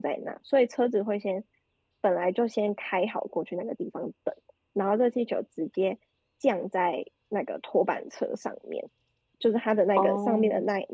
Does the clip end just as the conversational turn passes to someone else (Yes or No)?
No